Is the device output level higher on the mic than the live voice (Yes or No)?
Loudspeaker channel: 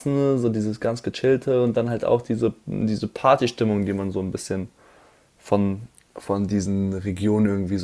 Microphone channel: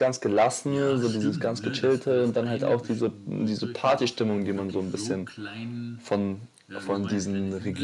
Yes